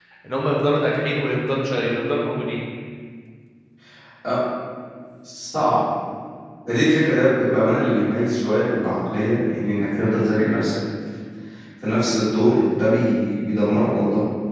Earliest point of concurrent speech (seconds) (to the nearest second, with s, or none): none